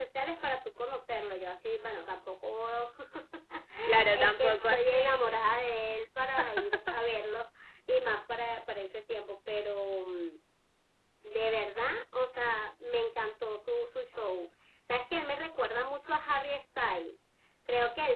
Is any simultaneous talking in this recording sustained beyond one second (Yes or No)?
Yes